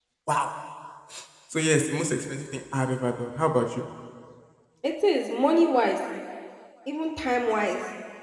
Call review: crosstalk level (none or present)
none